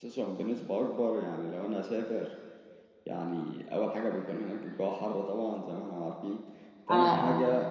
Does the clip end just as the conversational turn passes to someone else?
No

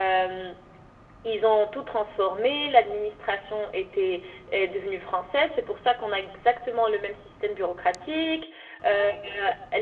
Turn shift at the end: No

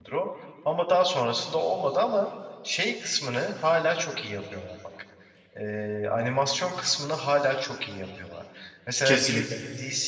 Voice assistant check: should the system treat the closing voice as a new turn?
No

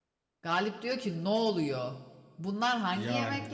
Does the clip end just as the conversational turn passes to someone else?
No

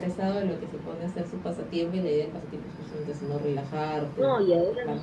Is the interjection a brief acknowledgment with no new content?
No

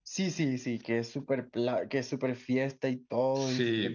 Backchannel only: No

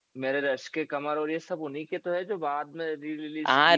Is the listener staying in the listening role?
No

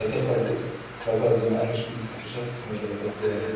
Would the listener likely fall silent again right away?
No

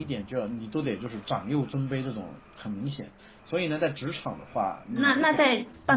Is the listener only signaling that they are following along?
No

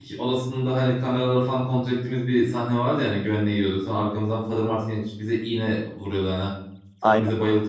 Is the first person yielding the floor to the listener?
No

